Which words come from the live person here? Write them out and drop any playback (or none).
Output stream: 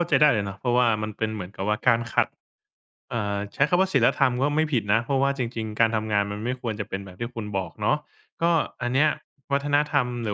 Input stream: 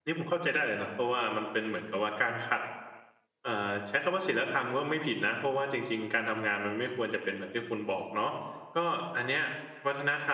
none